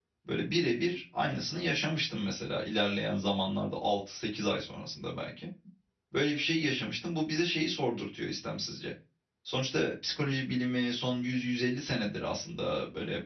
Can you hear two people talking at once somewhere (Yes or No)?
No